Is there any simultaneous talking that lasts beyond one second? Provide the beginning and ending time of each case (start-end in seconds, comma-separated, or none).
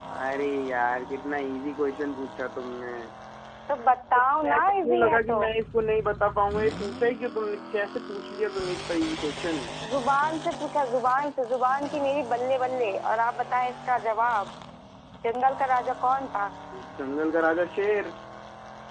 4.1-5.4